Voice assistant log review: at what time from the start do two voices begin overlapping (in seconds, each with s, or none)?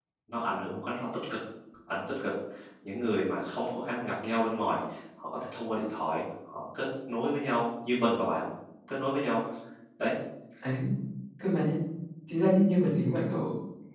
none